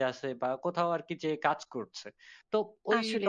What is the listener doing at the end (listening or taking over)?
listening